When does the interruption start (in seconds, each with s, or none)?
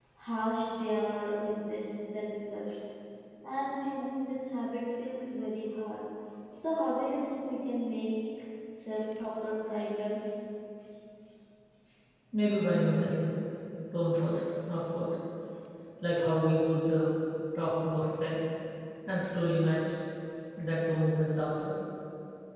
none